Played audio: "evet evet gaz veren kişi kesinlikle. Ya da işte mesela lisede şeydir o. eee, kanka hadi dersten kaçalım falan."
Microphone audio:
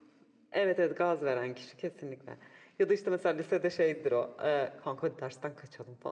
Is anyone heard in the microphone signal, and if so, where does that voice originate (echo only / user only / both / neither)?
echo only